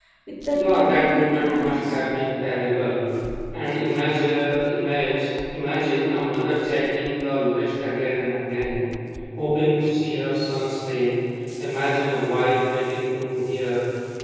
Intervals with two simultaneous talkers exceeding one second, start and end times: 0.5-2.0

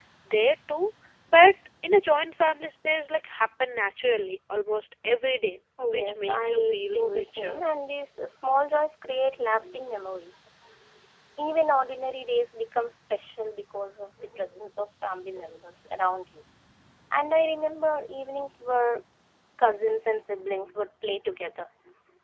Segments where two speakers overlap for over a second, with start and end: 5.9-7.6

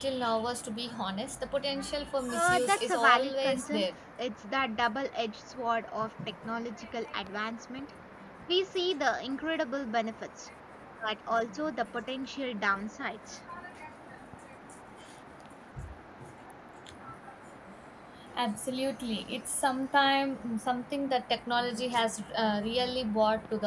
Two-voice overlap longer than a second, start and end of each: 2.3-3.9

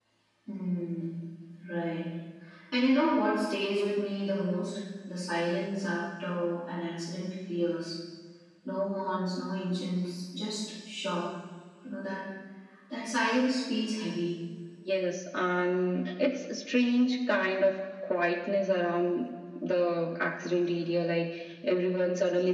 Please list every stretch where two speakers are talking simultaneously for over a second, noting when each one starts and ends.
none

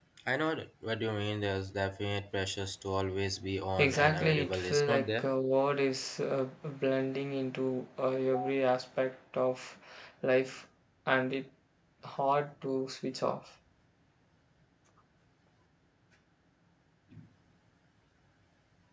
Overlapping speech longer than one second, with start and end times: 3.8-5.3

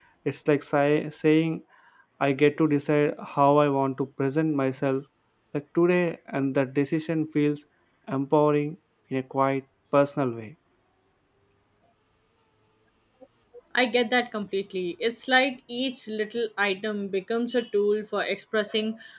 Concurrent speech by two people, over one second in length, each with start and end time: none

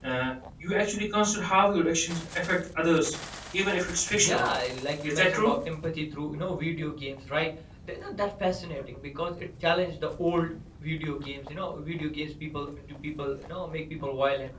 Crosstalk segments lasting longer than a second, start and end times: none

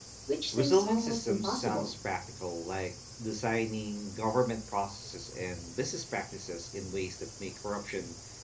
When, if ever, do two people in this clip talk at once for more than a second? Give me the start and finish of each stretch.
0.5-1.9

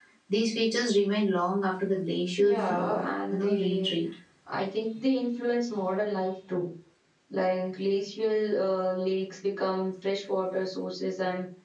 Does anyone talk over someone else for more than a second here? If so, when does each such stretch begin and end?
2.4-4.0

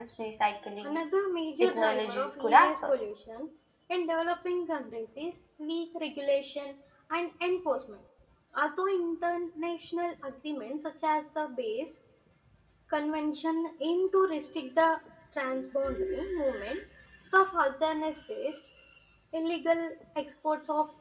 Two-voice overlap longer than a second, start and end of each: 1.6-2.9

